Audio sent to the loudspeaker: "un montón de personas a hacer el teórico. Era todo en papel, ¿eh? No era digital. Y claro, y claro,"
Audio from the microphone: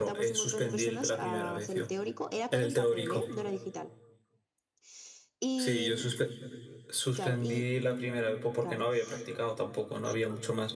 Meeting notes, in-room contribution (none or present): present